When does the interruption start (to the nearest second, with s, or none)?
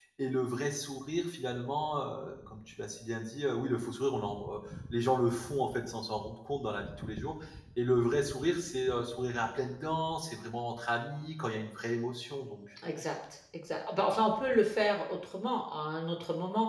none